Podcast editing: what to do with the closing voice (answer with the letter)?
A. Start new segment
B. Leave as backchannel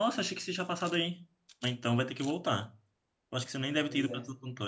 B